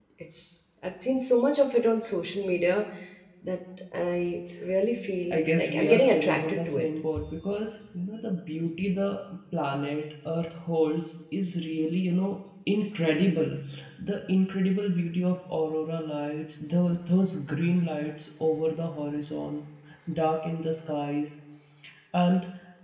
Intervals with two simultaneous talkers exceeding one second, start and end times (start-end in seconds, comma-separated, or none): 5.3-6.8